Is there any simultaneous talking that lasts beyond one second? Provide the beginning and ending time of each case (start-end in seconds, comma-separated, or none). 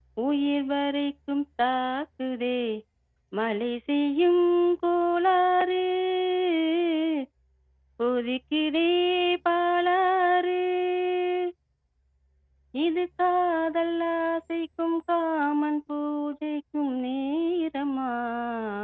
none